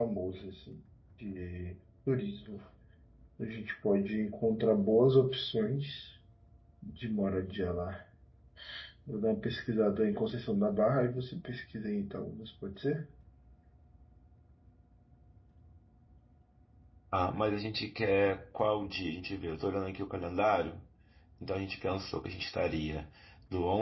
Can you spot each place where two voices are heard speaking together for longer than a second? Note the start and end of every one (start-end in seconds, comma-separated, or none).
none